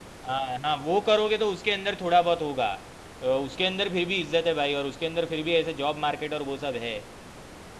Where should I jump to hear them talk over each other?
none

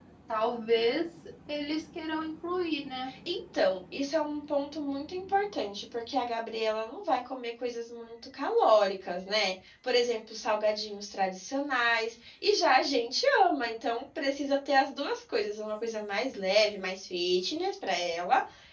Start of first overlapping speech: none

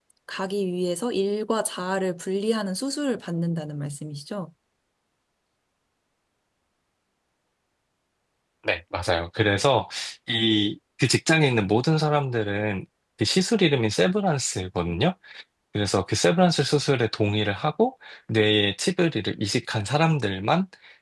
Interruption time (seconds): none

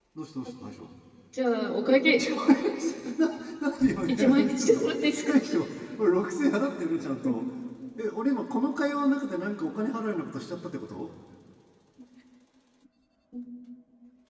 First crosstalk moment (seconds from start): 4.1 s

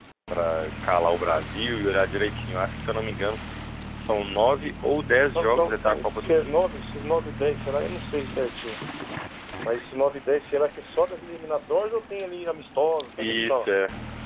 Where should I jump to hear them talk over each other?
5.3 s

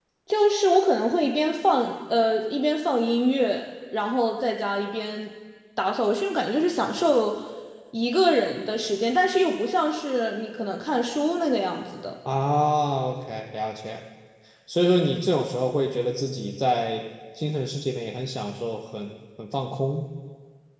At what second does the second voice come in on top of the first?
none

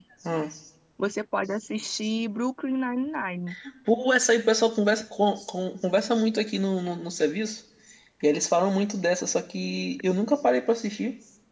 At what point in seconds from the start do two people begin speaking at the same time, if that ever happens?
none

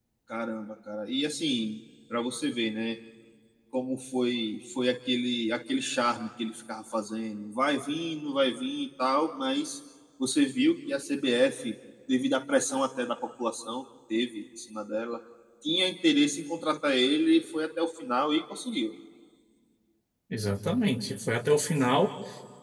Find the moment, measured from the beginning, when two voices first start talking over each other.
none

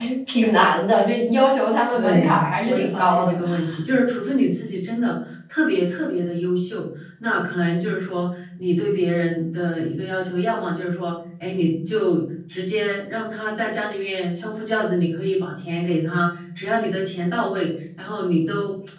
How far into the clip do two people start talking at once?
1.9 s

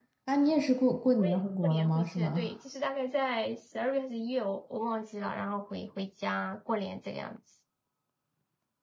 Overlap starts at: 1.2 s

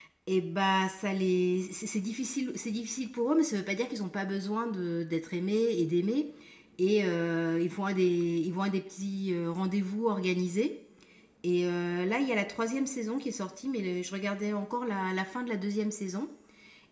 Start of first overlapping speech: none

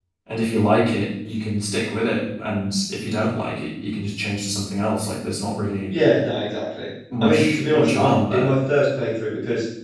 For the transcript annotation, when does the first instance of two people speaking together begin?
7.1 s

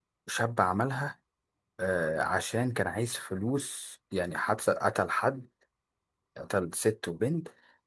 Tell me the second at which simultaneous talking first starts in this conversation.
none

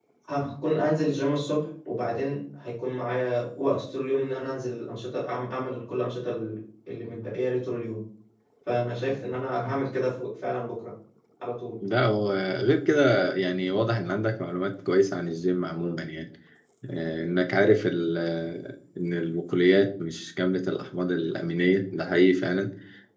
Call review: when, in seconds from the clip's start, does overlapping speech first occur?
none

